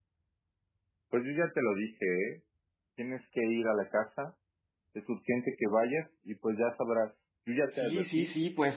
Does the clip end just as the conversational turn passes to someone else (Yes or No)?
Yes